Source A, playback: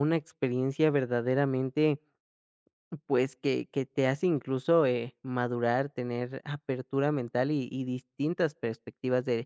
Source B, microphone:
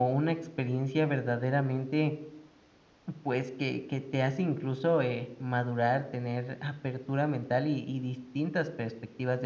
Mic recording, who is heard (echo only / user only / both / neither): echo only